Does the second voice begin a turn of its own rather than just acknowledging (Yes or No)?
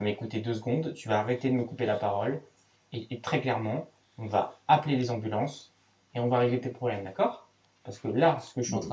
No